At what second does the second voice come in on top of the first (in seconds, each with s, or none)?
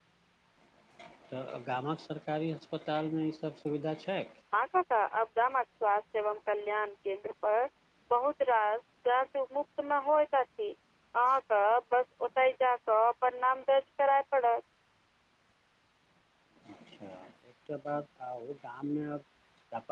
none